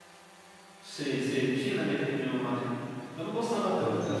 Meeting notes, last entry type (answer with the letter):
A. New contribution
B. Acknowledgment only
B